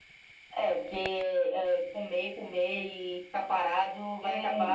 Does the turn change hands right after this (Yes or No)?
Yes